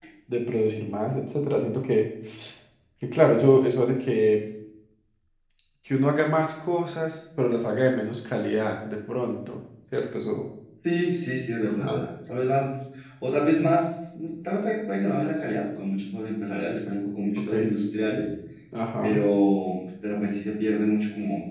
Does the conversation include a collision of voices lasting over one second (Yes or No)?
No